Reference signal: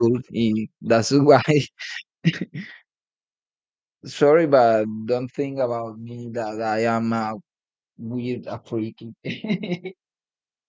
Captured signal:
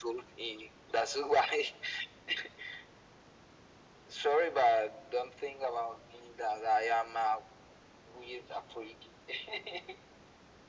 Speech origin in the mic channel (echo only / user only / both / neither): echo only